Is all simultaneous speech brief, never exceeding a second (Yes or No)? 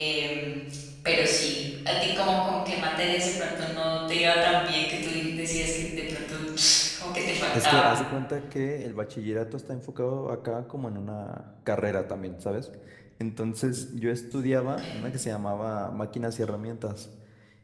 Yes